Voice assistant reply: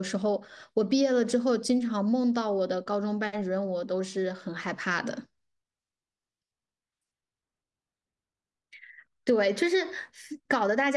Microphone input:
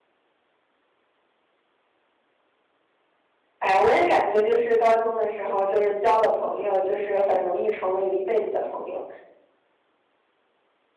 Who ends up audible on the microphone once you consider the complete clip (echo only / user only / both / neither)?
user only